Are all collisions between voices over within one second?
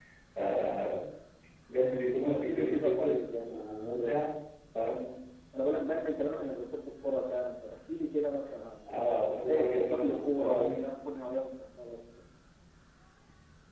No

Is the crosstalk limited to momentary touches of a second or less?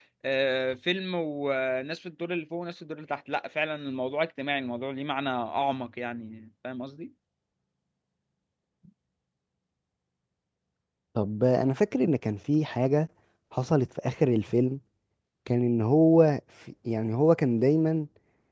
Yes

